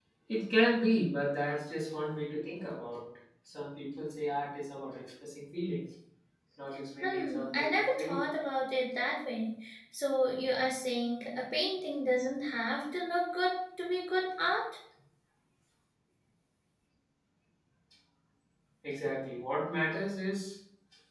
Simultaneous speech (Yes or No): Yes